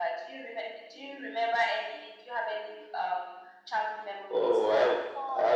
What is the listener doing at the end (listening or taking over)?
taking over